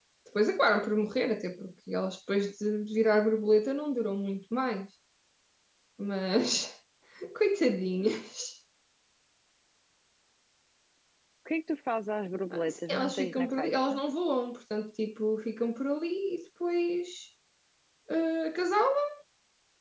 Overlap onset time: 12.5 s

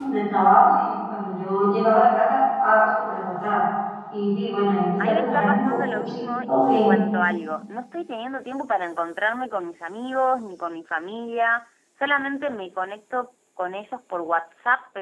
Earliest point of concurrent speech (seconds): 5.0 s

